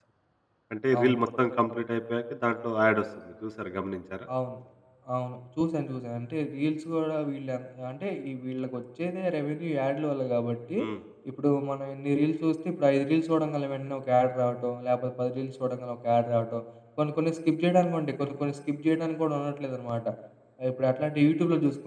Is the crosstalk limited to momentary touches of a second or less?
Yes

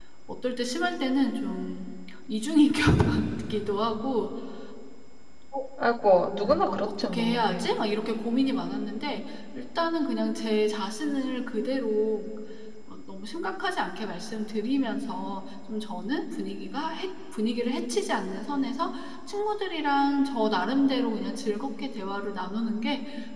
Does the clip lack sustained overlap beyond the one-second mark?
No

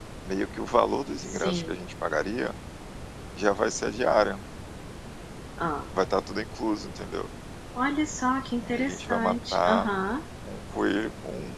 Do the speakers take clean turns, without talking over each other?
No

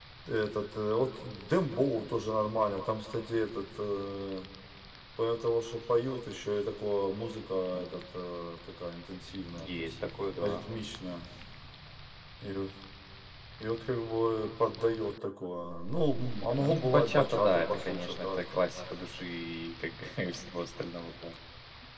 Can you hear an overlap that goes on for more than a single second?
Yes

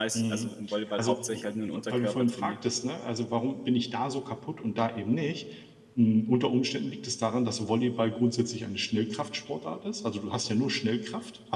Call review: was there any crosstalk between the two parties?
Yes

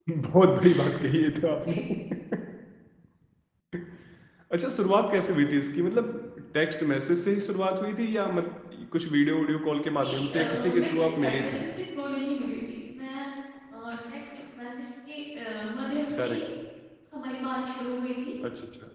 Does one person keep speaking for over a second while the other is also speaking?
Yes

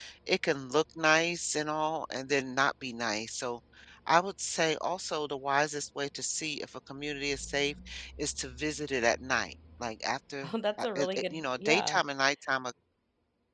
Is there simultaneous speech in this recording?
Yes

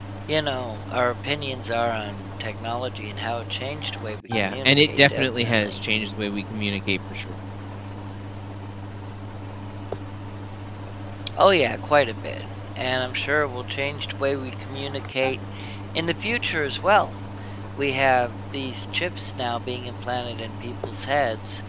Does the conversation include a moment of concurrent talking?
Yes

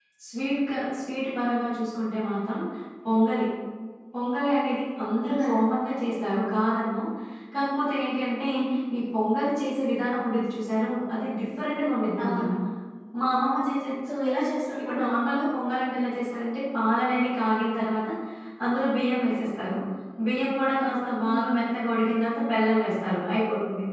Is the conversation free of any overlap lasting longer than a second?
Yes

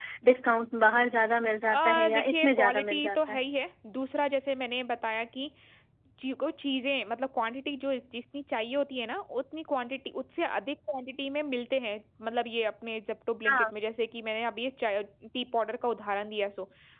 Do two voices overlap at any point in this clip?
Yes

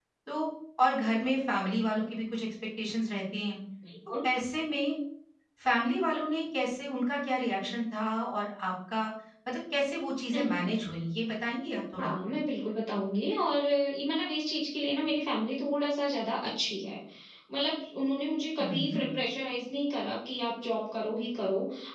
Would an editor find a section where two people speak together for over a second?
No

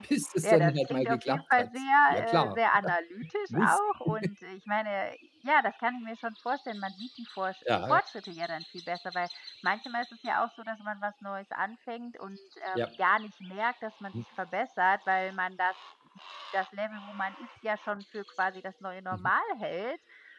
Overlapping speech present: Yes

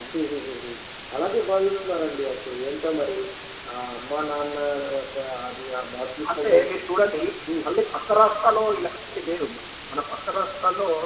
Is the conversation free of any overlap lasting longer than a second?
Yes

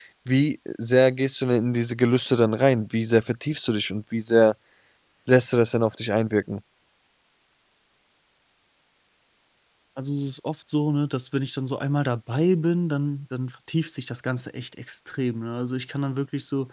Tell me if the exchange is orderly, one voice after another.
Yes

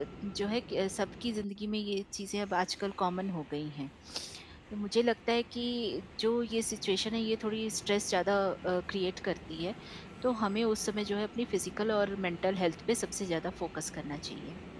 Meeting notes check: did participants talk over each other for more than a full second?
No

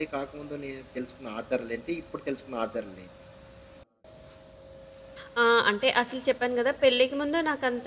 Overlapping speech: No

